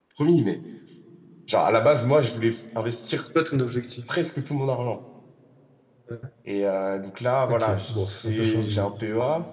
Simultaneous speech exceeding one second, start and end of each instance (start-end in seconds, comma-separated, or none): 7.5-8.9